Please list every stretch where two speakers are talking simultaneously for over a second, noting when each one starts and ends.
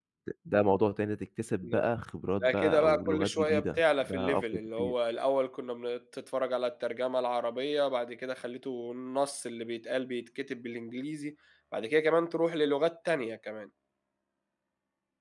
2.4-4.9

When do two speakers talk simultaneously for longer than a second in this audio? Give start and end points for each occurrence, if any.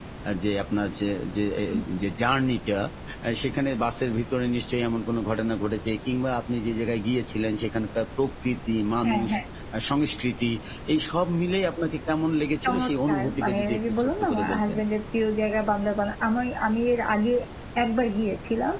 12.6-14.8

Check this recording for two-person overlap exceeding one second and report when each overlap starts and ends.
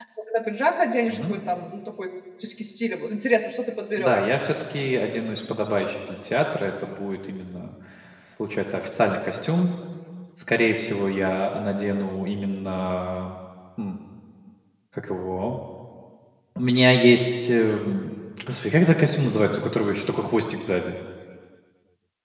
none

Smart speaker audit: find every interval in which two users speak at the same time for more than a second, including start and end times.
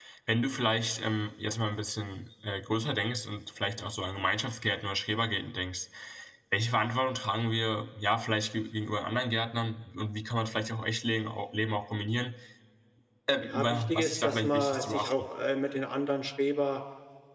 13.4-15.1

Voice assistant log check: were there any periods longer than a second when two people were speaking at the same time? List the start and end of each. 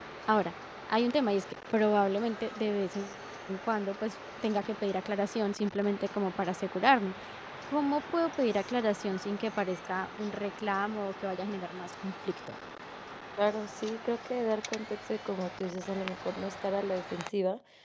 none

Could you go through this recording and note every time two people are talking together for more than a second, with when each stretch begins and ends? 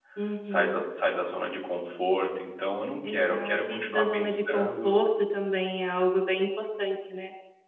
3.0-5.0

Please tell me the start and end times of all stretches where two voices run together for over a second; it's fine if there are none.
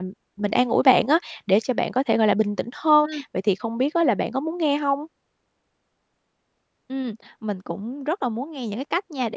none

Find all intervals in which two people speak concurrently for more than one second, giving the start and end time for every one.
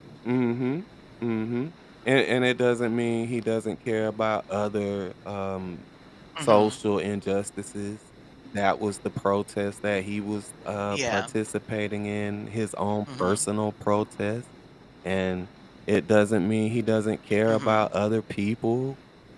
none

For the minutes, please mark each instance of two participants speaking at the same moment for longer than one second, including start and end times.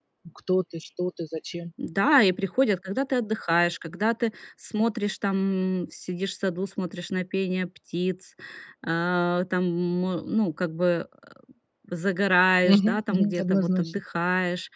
12.6-13.9

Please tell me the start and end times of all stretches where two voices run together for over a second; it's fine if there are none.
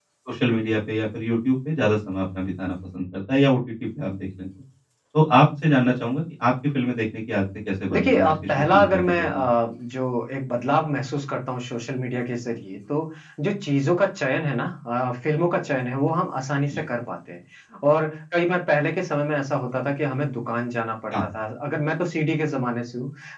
7.9-9.4

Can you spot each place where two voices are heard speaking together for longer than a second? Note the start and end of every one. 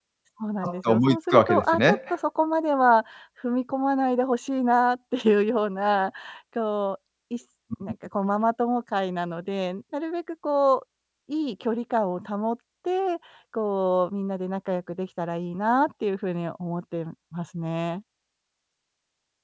0.6-2.0

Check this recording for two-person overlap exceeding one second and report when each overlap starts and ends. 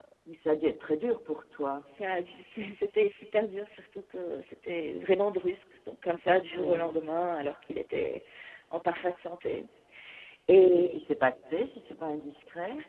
none

